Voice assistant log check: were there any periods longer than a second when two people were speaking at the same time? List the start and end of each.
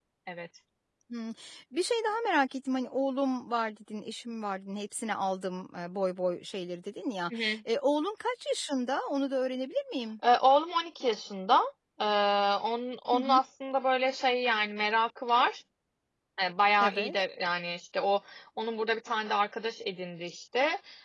none

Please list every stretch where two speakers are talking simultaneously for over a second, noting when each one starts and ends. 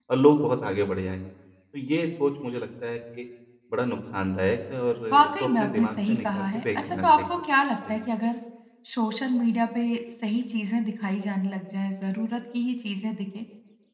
5.1-7.2

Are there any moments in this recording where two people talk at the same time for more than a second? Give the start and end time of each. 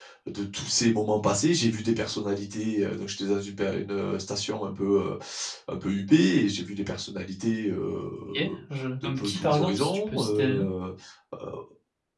9.0-10.7

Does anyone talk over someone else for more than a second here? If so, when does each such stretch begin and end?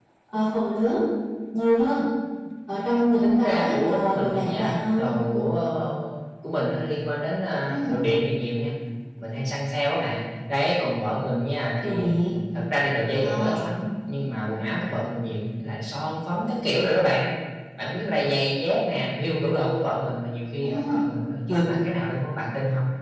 3.2-5.1

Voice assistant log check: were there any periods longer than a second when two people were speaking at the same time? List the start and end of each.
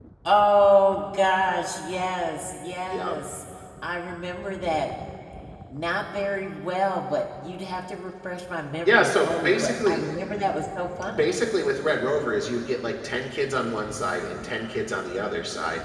8.8-10.0

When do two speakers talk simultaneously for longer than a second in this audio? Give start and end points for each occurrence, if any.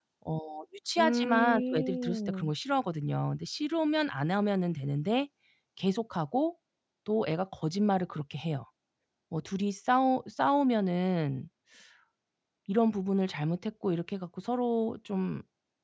1.0-2.5

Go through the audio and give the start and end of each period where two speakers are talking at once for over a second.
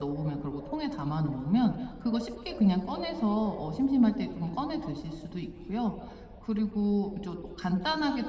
none

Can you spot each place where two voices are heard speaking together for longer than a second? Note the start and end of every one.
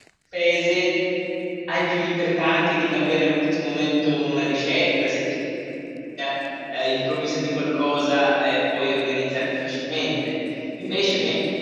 none

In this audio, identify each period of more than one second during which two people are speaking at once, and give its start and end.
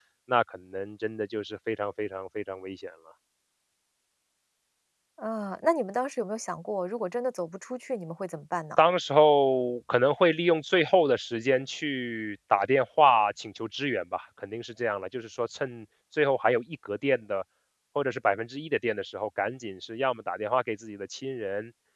none

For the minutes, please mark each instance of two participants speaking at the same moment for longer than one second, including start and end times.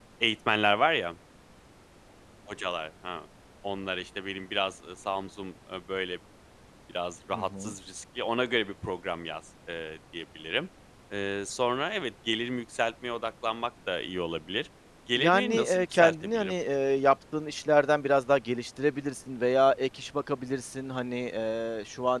15.2-16.5

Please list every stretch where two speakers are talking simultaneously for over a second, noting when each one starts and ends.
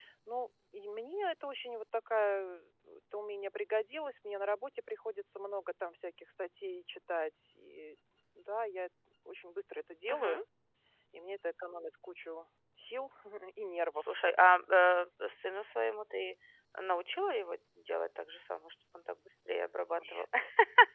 none

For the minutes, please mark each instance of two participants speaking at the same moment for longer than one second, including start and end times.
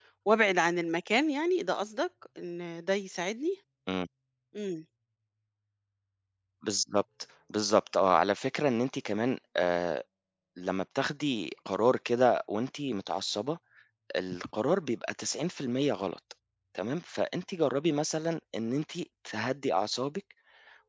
none

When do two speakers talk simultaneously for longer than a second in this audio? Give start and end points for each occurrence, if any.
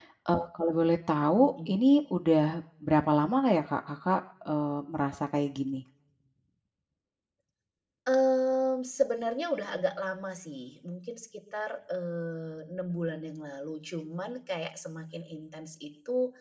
none

